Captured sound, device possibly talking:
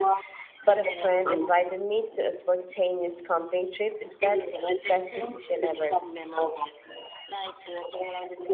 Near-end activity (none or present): present